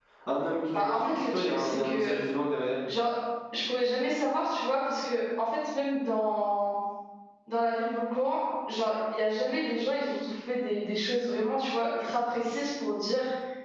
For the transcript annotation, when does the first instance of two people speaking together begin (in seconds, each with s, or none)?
0.7 s